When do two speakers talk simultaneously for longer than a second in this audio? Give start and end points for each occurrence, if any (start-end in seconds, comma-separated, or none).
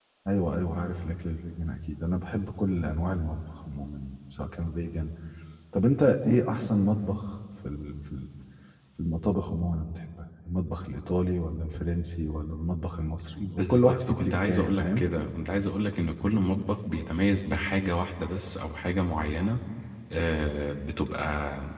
13.4-15.0